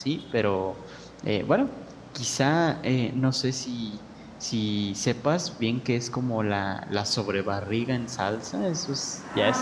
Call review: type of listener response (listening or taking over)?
taking over